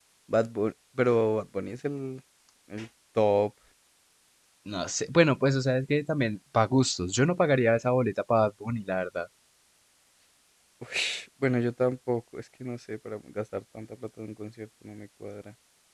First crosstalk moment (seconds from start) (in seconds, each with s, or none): none